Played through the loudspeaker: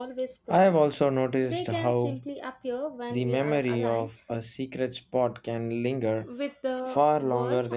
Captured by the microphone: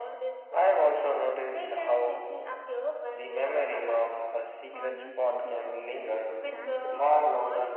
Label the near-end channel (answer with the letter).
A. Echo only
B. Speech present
B